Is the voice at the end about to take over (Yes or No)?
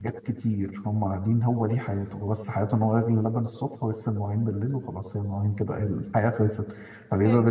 No